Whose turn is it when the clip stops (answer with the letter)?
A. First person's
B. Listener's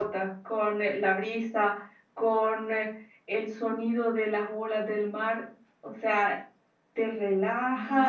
A